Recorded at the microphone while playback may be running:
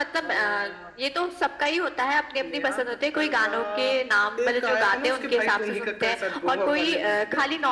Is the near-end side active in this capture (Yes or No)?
No